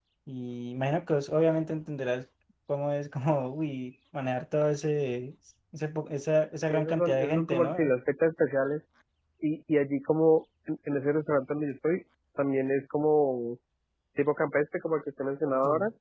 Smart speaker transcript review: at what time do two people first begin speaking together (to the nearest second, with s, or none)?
7 s